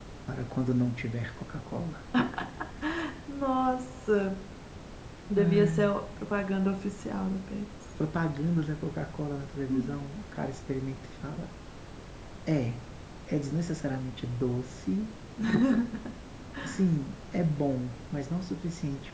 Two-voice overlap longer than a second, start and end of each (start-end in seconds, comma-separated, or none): none